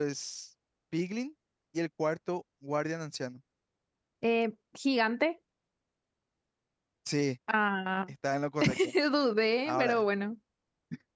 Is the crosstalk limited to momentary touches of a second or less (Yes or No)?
Yes